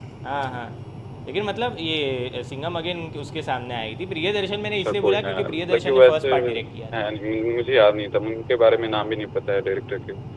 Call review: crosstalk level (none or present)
present